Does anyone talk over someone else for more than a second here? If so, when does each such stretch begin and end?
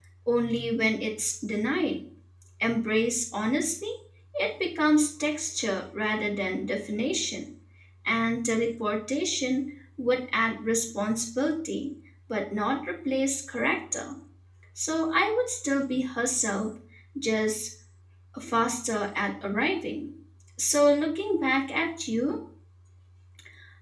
none

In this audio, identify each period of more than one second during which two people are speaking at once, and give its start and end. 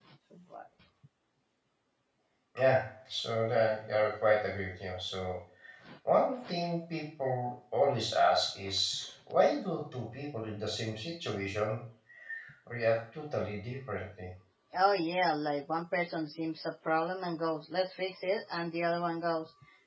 none

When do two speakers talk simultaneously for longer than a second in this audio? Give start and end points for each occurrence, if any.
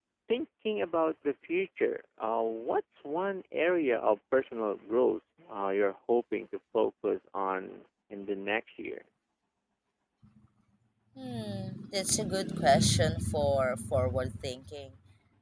none

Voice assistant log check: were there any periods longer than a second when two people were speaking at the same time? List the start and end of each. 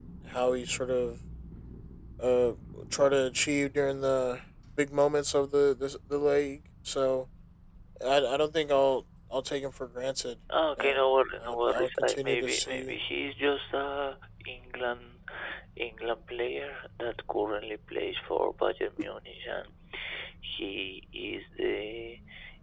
11.4-12.9

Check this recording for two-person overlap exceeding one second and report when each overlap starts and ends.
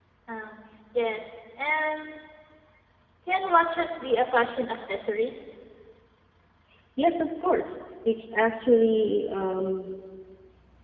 none

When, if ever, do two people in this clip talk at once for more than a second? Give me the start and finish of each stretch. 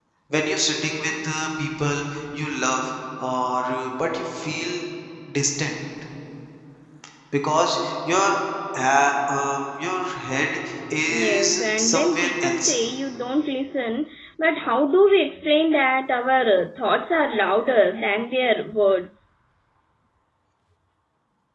11.1-12.8

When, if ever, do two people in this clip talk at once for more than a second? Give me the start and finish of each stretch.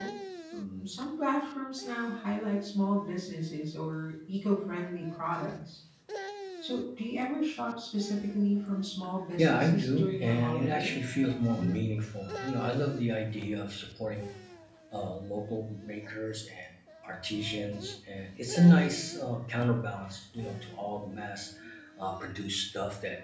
9.4-11.0

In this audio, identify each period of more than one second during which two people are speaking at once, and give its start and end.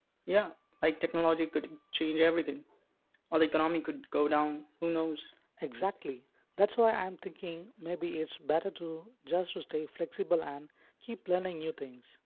none

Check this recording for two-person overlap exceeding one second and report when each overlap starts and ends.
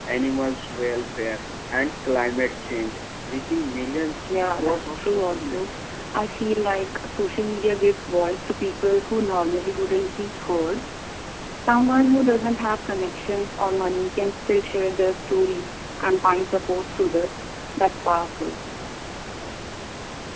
4.3-5.7

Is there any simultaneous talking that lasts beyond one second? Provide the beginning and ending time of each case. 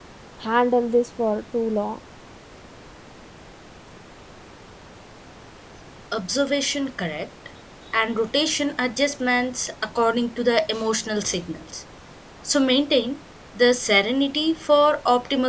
none

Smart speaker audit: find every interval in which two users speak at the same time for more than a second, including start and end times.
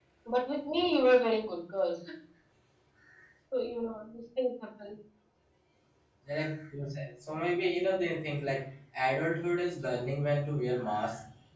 none

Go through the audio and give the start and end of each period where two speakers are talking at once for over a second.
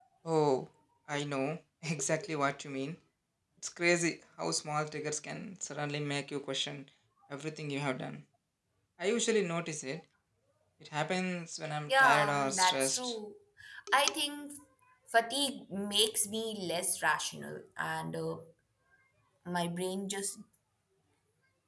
11.9-13.2

